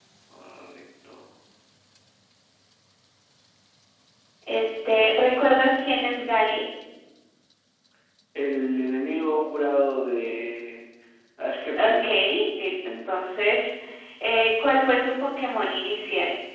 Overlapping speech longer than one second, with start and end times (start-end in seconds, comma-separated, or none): none